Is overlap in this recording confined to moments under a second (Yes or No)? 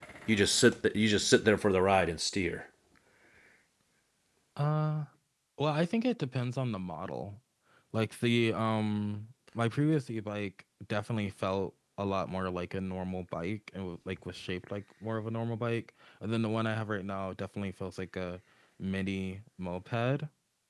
Yes